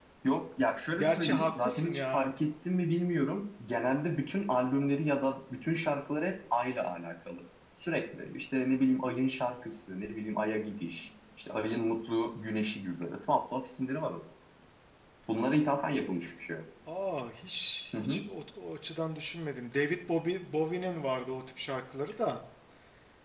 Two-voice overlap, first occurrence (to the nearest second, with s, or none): 1 s